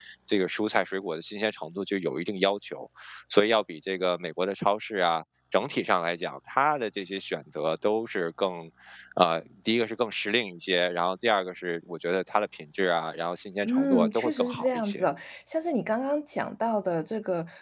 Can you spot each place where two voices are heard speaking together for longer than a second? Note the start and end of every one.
13.6-15.1

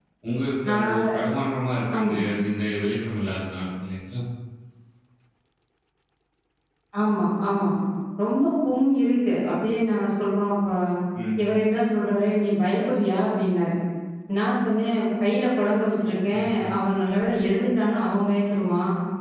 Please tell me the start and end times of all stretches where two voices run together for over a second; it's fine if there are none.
none

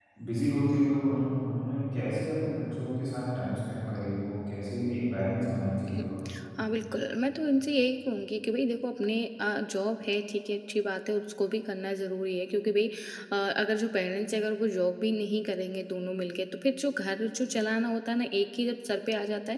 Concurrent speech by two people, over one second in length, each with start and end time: none

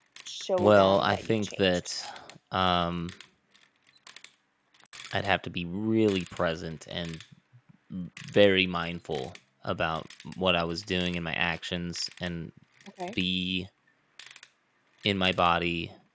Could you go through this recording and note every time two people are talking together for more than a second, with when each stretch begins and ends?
0.6-1.9

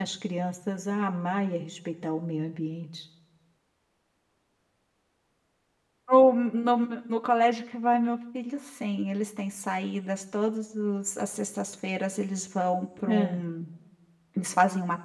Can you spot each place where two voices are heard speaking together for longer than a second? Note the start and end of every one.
none

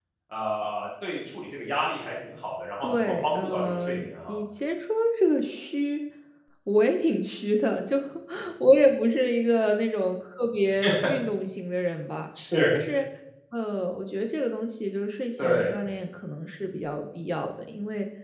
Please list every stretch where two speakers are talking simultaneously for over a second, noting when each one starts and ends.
2.8-4.4

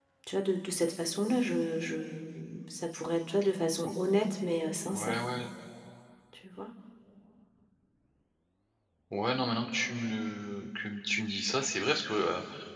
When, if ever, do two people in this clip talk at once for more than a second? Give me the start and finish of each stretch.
none

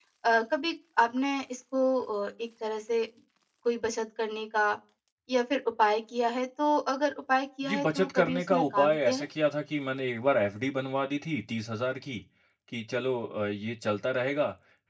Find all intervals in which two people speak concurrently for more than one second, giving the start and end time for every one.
7.6-9.3

